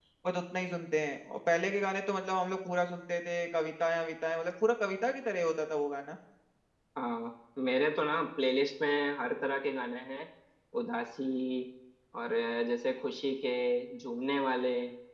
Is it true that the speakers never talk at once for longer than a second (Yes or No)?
Yes